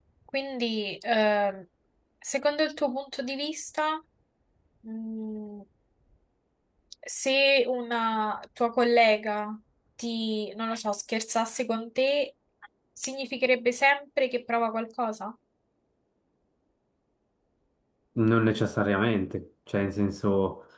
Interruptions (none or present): none